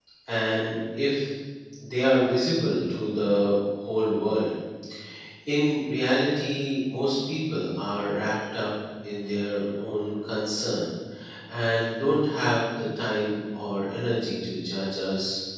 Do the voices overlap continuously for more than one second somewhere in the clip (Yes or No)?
No